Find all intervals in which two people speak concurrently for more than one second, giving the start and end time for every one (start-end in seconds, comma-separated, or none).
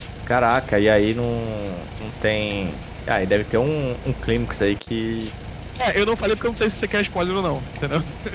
none